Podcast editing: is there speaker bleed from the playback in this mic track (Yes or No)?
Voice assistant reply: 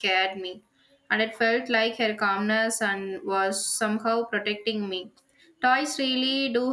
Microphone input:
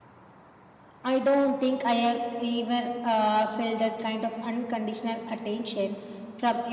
No